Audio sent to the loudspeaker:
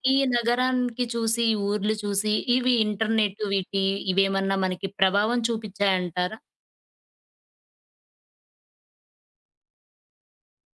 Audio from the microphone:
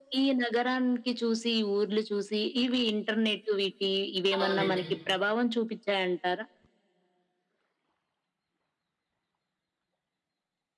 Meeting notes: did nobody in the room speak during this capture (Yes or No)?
No